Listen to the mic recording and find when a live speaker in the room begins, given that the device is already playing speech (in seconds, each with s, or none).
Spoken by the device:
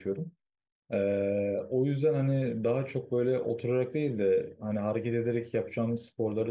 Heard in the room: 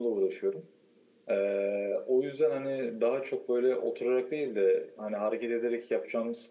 none